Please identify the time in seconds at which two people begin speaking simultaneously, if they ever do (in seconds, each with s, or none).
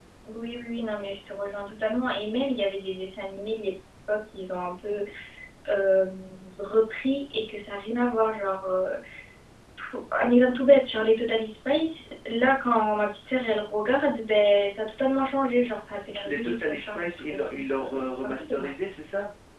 16.2 s